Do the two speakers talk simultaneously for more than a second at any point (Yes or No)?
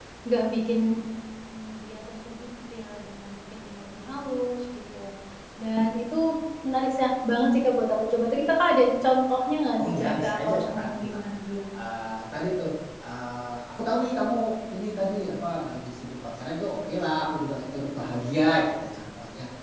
Yes